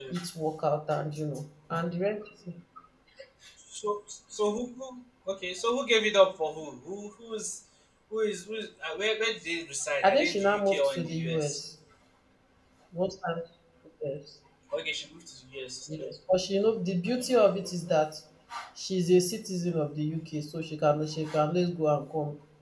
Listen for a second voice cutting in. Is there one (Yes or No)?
Yes